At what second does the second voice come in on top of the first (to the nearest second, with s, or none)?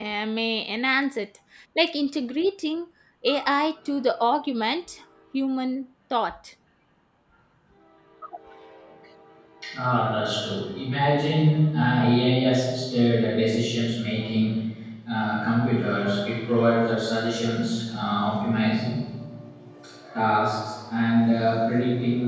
none